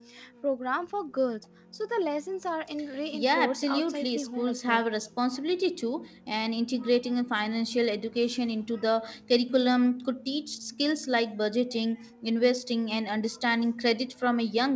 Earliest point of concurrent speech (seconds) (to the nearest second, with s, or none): 3 s